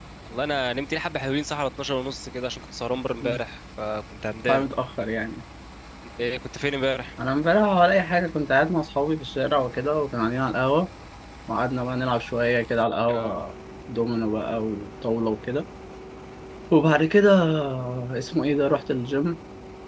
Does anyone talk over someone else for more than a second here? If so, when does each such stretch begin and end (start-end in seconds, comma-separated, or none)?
none